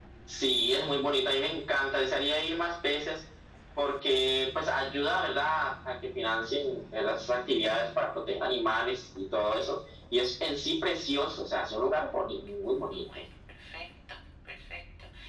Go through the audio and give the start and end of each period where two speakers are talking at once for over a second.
none

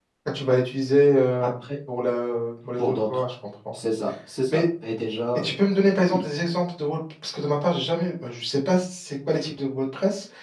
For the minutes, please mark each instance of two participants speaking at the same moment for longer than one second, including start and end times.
none

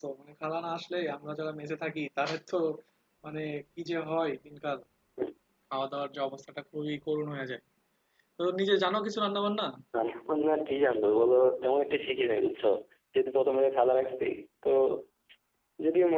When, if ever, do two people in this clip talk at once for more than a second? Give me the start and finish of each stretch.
none

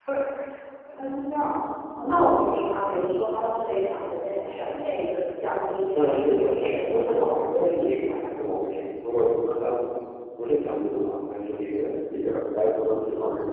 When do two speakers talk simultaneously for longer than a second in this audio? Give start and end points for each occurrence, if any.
5.9-8.1

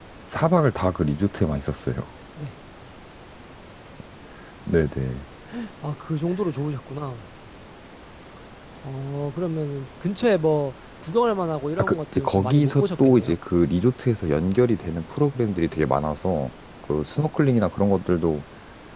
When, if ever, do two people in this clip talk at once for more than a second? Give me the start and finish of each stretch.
11.8-13.4

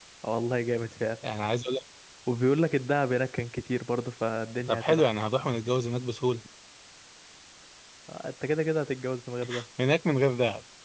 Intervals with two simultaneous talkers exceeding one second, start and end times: none

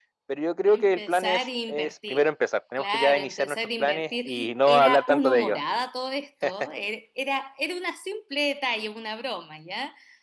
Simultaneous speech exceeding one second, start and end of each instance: 0.7-2.2, 2.8-5.6

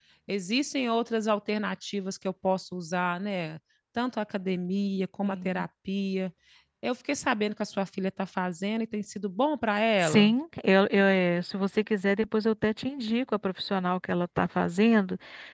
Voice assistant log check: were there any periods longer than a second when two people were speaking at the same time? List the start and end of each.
none

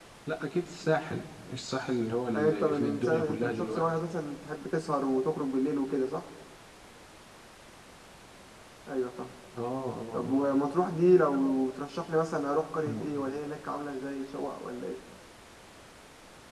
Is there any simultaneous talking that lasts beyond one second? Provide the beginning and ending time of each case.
2.4-3.9

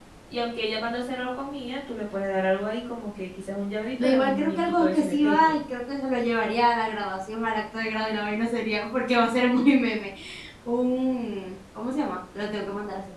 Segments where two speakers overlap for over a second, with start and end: 4.0-5.5

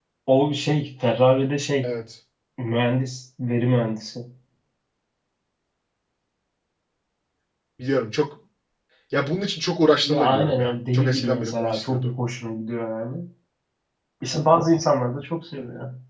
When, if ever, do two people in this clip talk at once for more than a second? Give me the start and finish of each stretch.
10.0-12.1

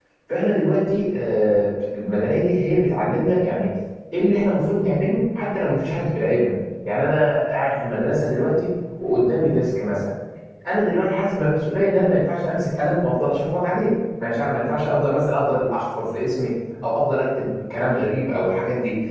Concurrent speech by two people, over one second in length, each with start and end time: none

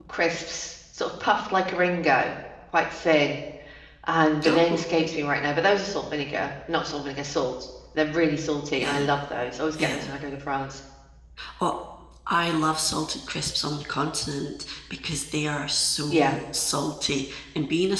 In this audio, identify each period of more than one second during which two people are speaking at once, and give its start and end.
none

